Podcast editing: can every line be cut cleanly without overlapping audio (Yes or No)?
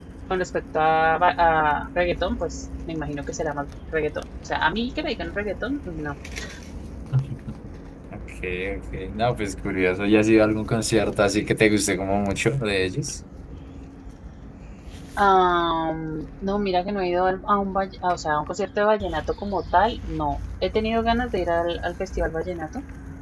Yes